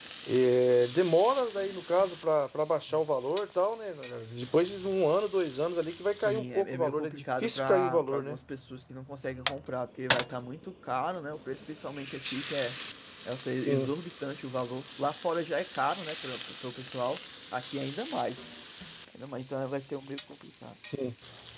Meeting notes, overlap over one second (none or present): present